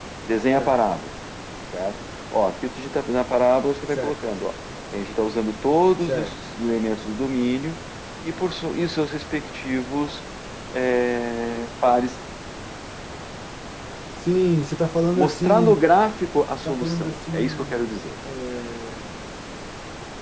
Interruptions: present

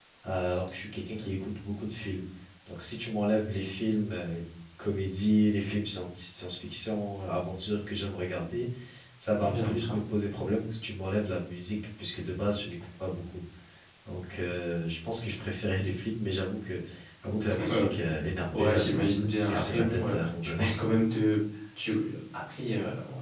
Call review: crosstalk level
present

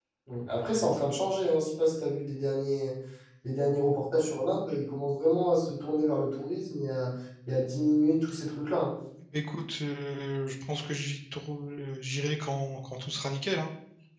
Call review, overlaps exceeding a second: none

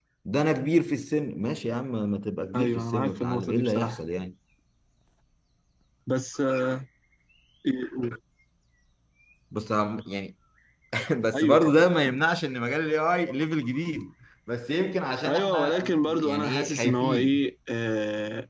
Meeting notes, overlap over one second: present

